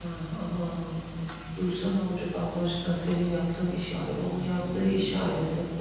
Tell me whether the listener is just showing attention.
Yes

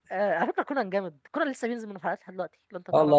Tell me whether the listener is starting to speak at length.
Yes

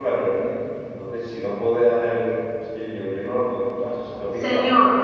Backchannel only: No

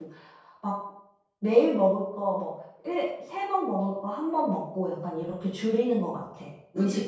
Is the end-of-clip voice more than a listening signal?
Yes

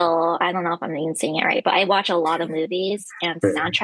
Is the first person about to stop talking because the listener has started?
No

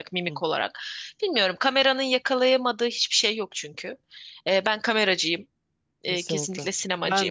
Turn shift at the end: Yes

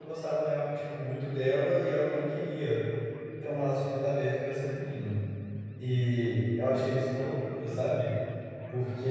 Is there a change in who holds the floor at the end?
No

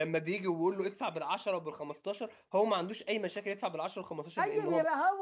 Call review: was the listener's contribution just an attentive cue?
No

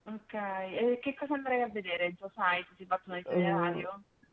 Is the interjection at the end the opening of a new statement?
Yes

